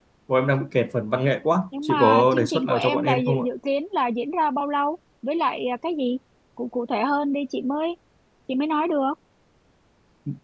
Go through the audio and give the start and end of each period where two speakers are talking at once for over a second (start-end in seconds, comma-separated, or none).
1.8-3.5